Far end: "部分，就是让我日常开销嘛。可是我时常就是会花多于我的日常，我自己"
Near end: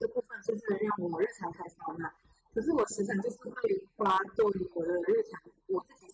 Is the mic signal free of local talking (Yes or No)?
Yes